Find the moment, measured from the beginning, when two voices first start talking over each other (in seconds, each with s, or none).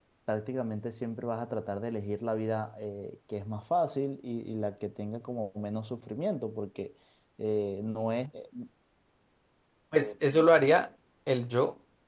none